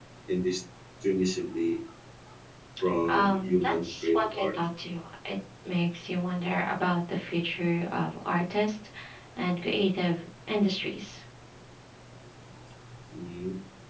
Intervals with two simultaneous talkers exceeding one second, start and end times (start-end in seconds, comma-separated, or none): 3.1-4.5